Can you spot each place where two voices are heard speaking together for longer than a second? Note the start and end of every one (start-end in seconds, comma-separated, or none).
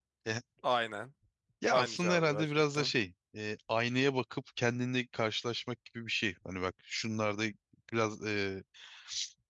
1.7-2.9